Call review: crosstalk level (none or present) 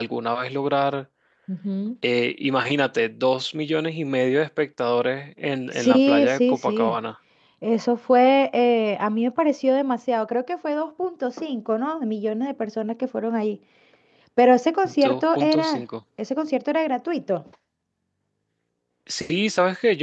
present